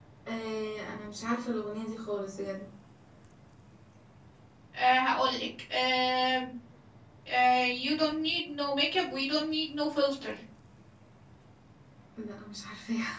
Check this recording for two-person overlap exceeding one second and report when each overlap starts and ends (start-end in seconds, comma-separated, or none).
none